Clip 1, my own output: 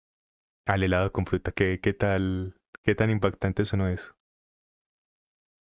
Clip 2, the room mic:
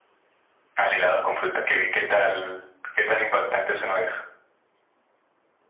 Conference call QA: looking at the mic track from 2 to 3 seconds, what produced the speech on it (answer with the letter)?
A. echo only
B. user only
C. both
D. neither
A